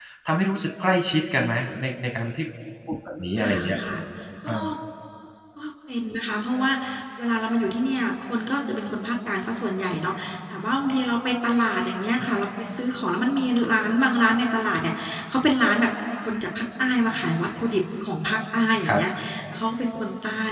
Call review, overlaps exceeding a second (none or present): none